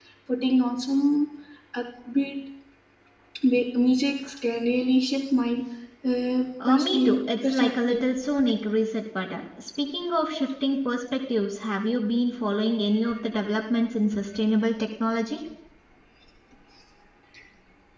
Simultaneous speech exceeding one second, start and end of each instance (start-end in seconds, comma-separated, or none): 6.7-8.0